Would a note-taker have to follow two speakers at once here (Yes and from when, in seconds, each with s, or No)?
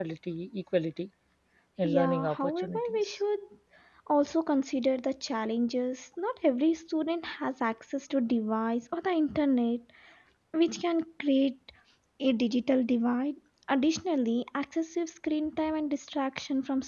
Yes, from 1.8 s